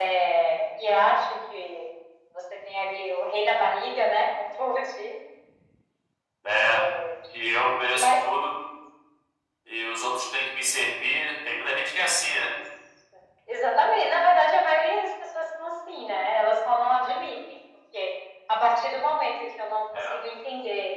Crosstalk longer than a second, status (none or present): none